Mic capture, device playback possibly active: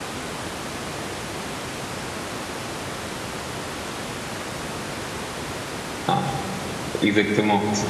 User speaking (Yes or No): Yes